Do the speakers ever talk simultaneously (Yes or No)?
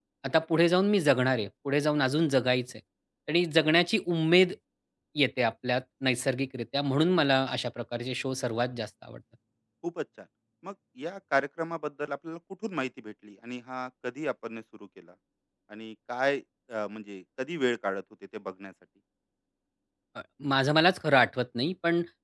No